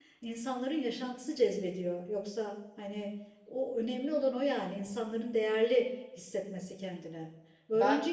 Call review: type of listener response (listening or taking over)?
listening